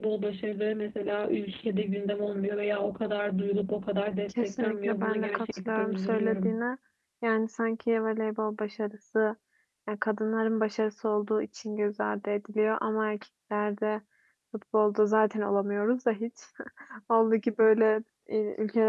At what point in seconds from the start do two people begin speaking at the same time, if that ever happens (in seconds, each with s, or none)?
4.3 s